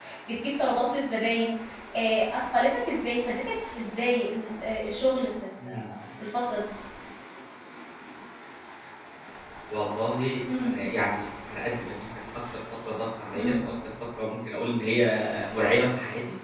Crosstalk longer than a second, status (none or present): none